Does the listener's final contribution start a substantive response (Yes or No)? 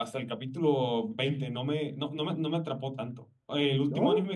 No